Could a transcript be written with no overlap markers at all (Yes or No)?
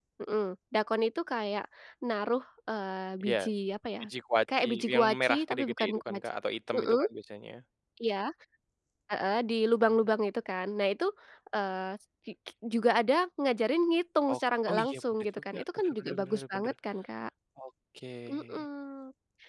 No